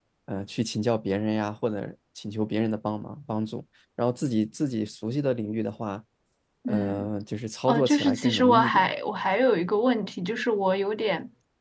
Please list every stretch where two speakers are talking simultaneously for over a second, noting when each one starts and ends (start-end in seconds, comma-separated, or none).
7.7-8.9